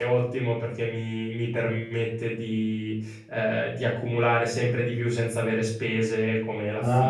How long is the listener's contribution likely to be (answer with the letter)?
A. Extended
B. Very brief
A